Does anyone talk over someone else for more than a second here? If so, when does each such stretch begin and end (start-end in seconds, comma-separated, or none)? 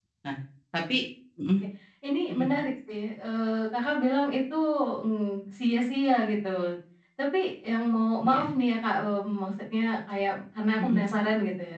none